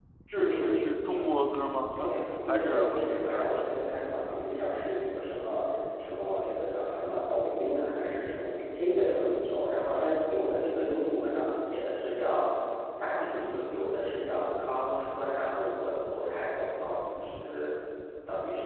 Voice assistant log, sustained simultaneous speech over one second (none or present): present